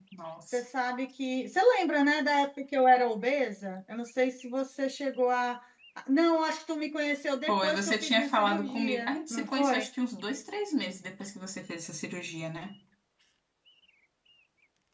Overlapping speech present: Yes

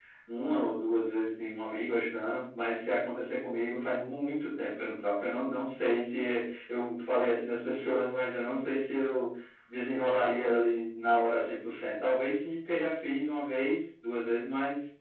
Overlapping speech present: No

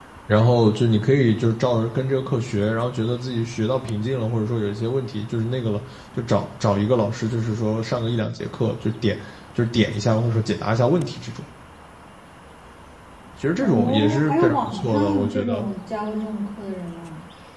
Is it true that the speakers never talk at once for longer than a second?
No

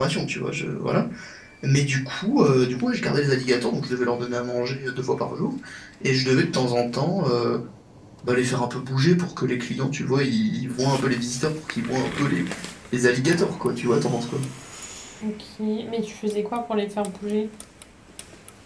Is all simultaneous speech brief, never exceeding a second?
Yes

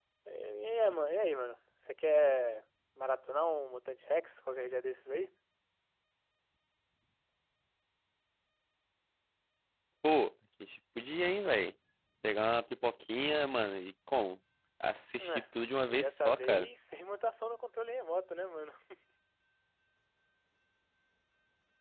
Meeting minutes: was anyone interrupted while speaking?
Yes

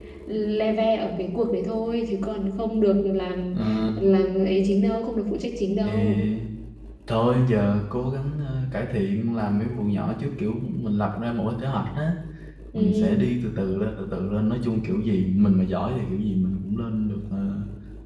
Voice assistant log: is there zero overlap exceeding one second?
Yes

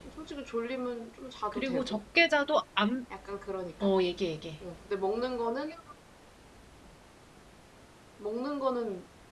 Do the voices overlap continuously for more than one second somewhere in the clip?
No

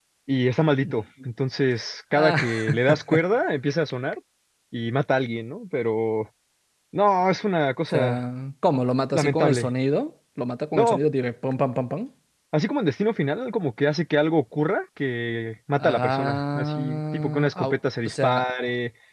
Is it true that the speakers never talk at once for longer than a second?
No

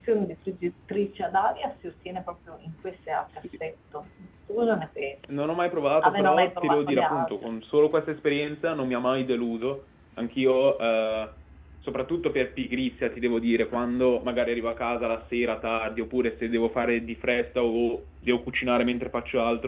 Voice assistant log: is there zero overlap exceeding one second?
No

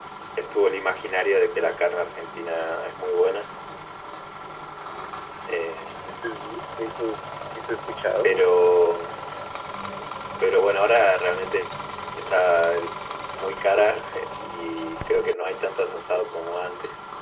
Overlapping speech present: No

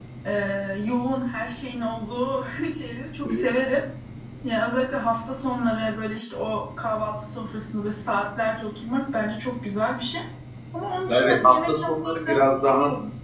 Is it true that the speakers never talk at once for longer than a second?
No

